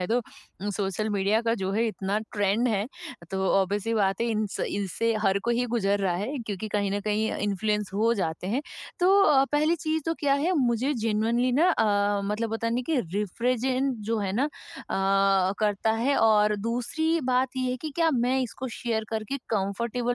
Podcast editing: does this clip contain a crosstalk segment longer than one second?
No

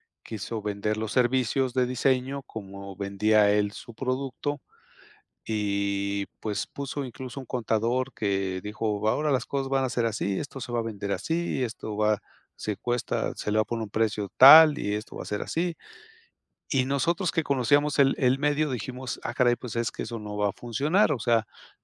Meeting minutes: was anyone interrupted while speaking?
No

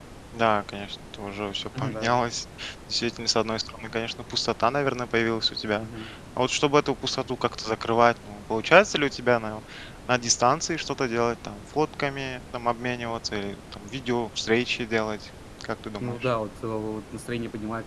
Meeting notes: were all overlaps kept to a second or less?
Yes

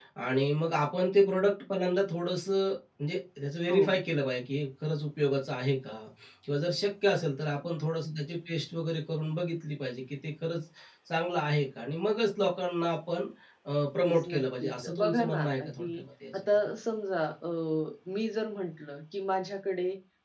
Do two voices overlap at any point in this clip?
Yes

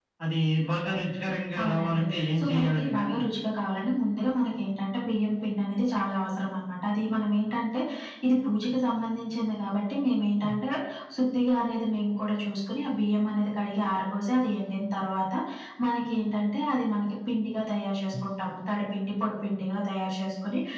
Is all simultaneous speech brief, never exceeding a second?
No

